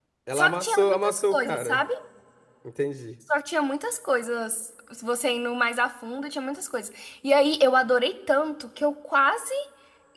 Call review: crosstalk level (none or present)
present